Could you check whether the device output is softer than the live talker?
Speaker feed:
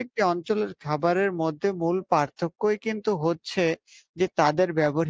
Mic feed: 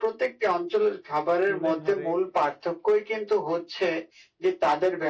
No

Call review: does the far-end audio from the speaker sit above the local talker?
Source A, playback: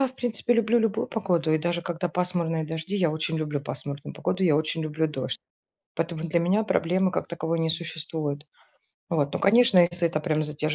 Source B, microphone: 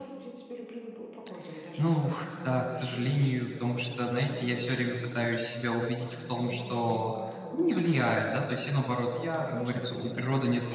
No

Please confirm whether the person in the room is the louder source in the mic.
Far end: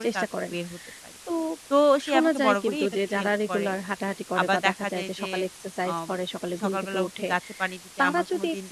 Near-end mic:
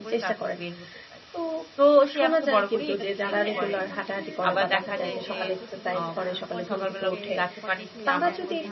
No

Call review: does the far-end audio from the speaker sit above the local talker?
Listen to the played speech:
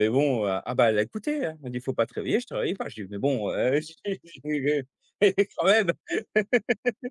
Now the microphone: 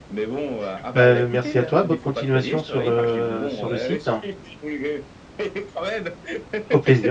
No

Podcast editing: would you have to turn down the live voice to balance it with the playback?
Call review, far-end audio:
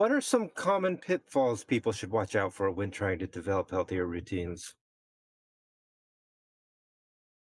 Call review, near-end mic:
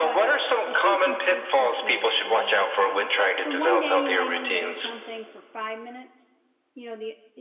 No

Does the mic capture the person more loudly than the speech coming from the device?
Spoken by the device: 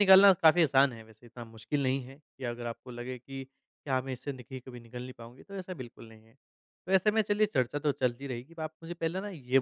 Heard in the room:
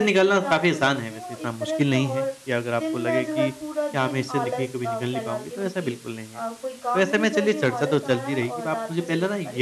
No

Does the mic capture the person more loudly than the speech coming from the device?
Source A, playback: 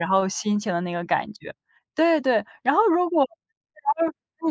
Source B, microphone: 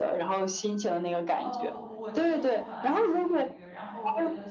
No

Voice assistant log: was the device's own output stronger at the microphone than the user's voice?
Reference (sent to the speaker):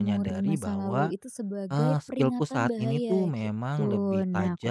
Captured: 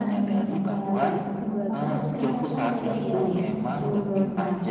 Yes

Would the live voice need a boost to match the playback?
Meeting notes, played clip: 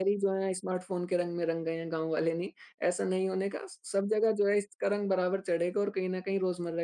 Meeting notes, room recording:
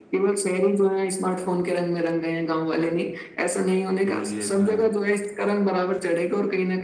Yes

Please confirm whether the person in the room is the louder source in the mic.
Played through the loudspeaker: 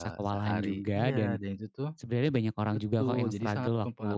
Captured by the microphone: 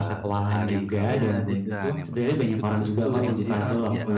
No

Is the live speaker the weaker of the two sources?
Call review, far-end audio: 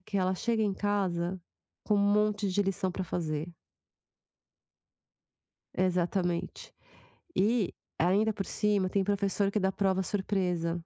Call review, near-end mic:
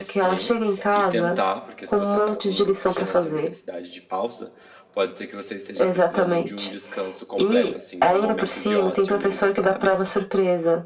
Yes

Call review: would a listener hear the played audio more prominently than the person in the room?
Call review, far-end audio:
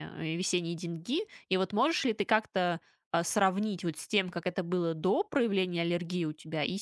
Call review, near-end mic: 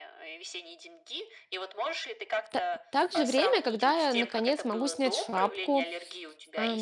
No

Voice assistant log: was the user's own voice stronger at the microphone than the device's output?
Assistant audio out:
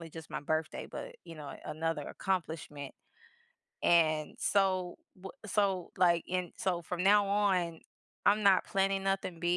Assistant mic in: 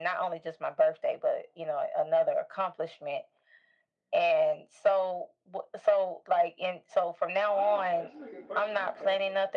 No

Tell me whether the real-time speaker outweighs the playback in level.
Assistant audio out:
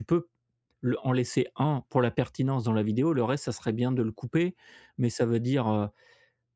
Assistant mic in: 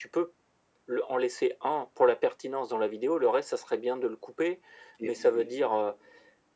No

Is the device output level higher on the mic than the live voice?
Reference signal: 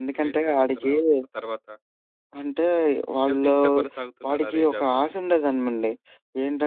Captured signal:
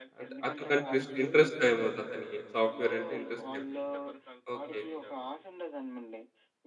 No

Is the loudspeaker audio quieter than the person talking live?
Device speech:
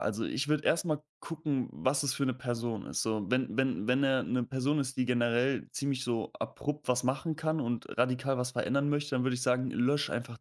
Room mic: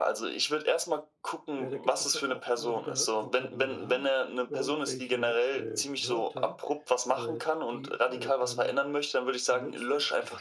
No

